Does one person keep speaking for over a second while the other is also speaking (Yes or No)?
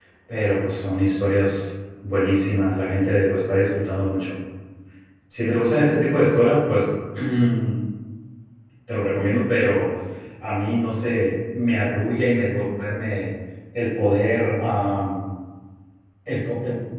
No